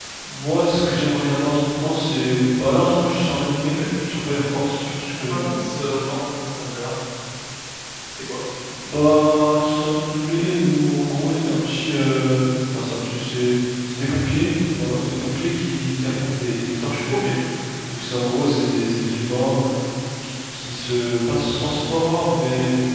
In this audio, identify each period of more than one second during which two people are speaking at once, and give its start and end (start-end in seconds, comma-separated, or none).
none